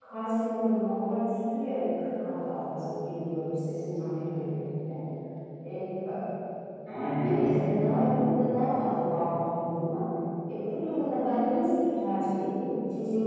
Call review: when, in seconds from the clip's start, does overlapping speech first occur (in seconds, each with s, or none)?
7.2 s